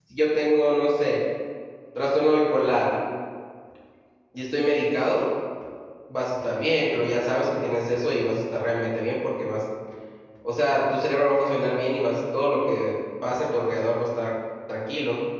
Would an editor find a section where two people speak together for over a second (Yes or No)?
No